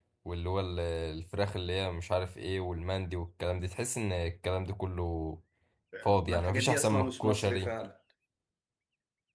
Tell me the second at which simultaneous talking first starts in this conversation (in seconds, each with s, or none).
6.2 s